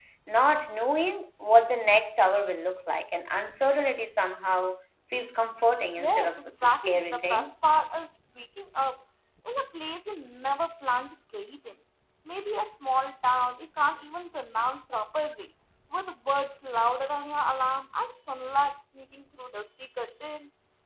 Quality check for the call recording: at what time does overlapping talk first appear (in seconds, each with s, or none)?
6.0 s